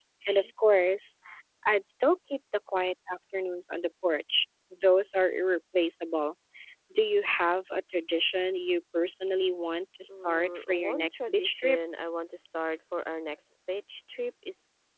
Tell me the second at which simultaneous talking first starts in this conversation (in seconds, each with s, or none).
10.1 s